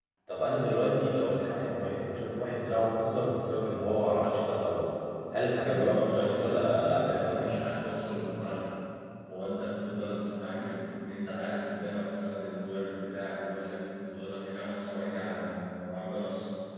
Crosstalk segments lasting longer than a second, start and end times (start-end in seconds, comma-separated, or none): 5.5-7.6